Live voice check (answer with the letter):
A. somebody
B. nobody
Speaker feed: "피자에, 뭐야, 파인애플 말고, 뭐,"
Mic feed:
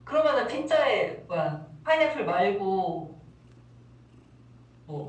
B